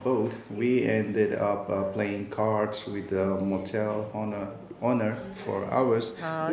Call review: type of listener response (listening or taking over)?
taking over